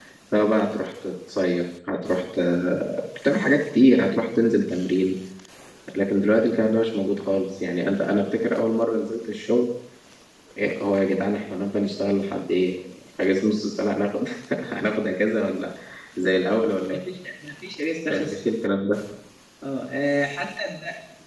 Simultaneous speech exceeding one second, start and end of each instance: none

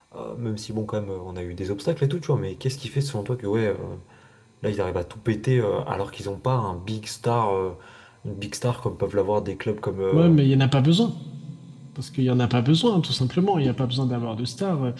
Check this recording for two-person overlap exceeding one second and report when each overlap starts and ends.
none

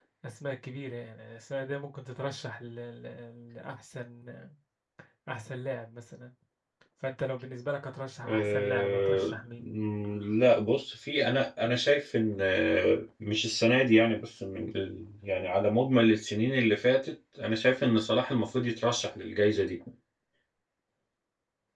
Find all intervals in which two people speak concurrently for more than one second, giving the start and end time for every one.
8.2-9.7

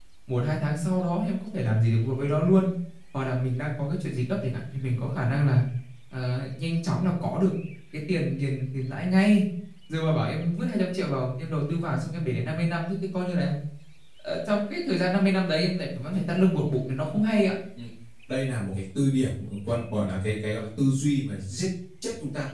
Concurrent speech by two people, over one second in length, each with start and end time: none

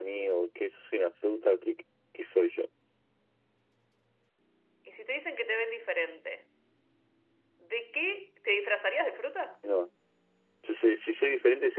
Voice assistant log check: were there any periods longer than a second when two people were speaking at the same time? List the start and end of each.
none

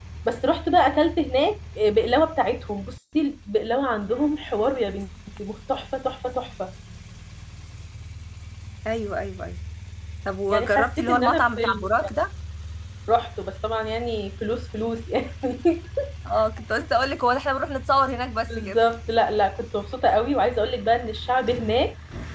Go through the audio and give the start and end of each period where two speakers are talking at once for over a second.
10.5-12.1

